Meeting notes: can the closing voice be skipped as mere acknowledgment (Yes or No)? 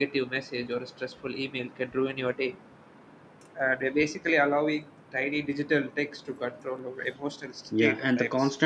No